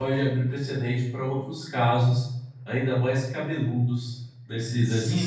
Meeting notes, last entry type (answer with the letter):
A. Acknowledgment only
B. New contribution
B